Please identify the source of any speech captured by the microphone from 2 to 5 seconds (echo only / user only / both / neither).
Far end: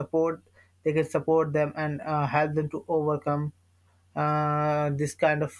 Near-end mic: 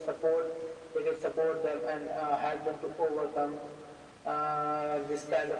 echo only